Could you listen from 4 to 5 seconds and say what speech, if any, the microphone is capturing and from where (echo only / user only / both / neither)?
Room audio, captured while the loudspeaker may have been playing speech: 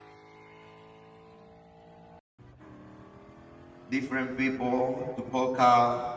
user only